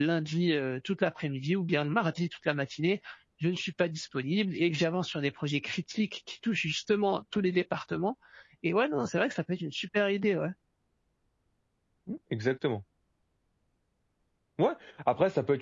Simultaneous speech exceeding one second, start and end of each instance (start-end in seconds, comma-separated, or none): none